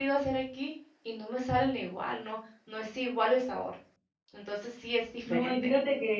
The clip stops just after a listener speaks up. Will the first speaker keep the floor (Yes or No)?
No